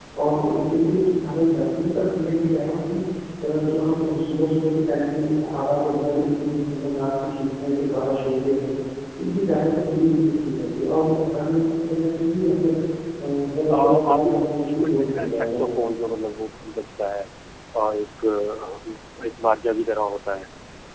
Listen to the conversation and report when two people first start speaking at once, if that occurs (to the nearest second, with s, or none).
14 s